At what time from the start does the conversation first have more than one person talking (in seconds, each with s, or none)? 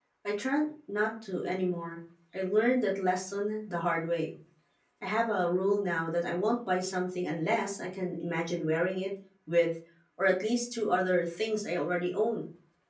none